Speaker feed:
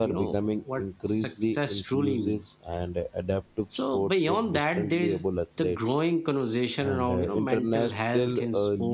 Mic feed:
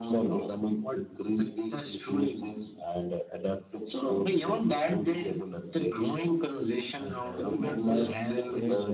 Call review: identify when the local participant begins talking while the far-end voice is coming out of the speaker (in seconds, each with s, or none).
7.4 s